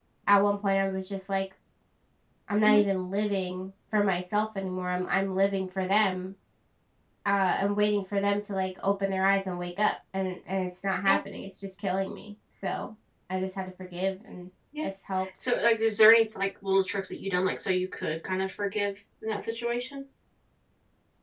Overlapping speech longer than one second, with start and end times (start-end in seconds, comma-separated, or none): none